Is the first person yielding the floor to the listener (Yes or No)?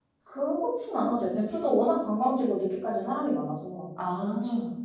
Yes